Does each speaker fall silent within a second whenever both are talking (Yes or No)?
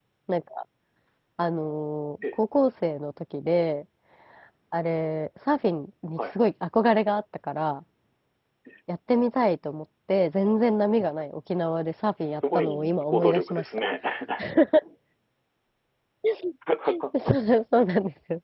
No